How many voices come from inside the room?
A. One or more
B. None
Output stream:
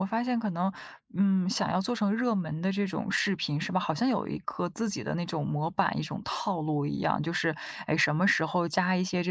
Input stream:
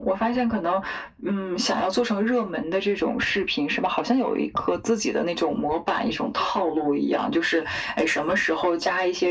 B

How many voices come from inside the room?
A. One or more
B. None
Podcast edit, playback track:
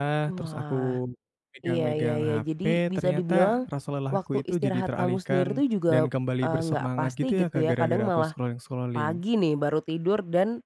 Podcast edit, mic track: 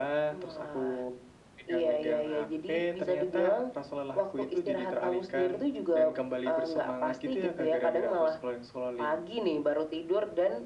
B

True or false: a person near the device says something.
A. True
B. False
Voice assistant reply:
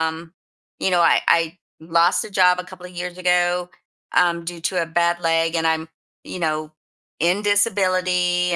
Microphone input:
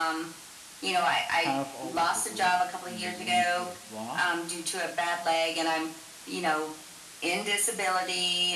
A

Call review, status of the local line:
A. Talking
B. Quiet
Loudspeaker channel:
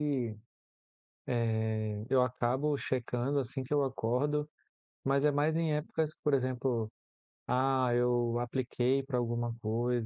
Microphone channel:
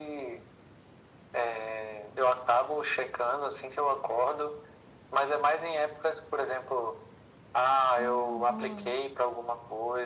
A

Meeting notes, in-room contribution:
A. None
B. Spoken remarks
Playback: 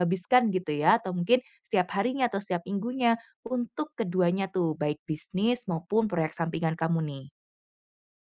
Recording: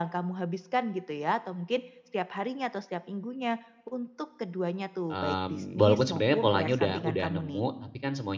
B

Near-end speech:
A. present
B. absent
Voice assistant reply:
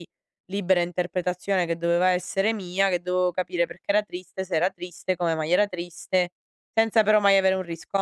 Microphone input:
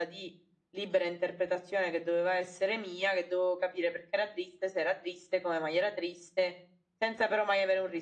B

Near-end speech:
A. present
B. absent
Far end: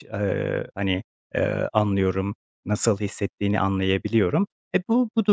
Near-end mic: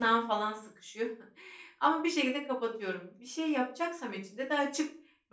A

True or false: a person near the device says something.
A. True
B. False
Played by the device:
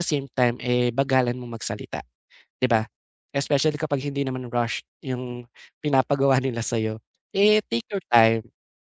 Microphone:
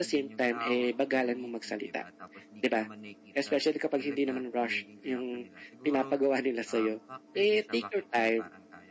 A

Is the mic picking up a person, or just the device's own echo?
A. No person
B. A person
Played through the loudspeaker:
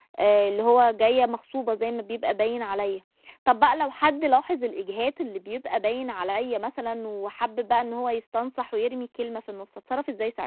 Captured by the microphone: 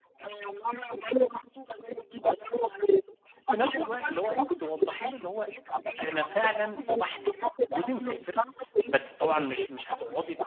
B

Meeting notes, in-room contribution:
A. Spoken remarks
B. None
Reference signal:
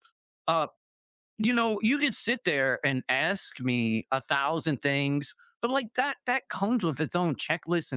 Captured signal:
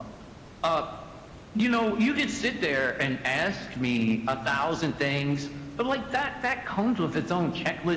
B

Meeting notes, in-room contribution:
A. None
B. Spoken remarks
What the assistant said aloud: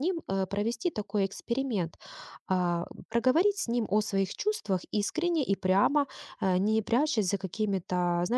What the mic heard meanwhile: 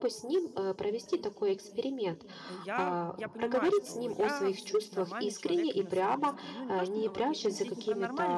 B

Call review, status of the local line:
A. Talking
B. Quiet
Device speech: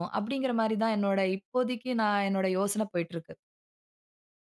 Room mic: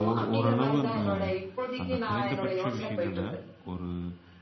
A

